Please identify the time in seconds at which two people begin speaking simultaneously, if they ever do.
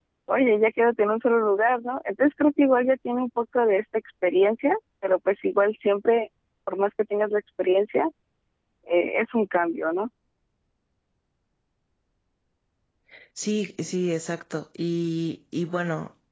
none

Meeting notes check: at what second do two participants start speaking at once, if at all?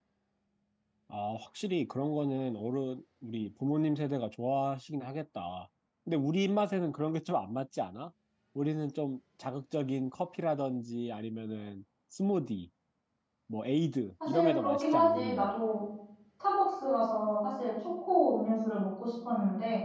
14 s

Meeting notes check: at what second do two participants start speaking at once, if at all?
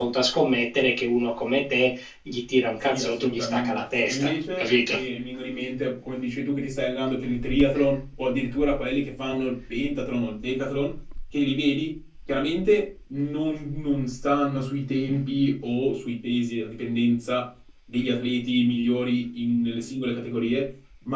3 s

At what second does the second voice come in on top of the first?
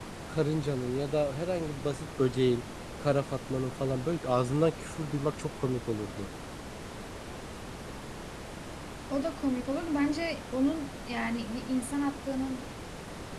none

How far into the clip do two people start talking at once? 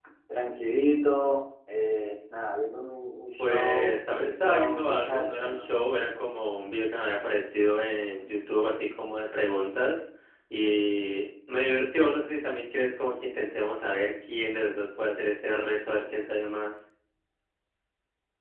3 s

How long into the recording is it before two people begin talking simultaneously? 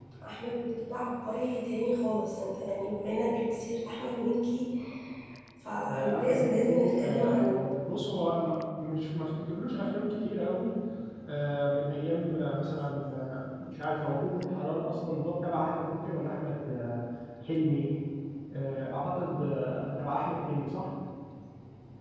6 s

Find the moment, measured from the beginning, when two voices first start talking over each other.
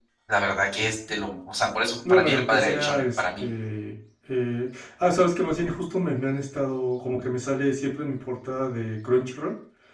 2 s

